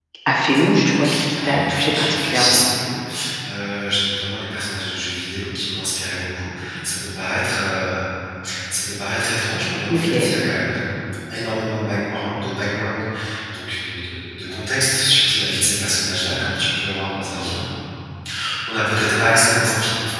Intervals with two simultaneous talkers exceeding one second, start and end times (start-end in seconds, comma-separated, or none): 0.8-2.6